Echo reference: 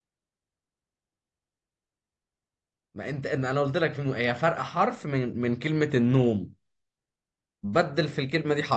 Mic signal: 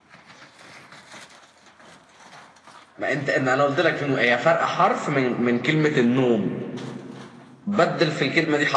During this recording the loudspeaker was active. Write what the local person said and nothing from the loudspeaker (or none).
none